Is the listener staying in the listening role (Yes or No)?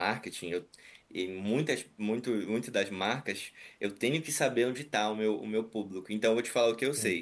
Yes